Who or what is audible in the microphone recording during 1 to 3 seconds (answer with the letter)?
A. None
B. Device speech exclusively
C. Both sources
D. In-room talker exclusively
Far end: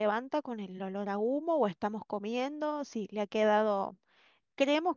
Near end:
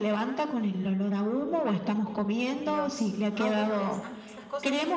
C